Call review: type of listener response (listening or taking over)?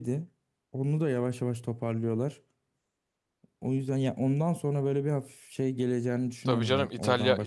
taking over